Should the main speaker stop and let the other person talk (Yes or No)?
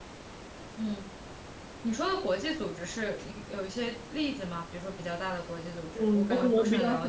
Yes